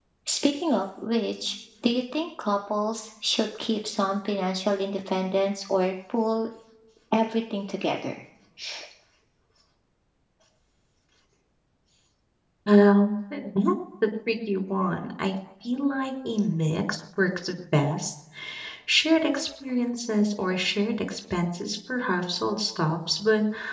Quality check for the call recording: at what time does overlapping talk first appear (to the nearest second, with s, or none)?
none